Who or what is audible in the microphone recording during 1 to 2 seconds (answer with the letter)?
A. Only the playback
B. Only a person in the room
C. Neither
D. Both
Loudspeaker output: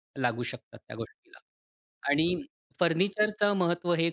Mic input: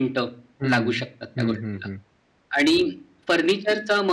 D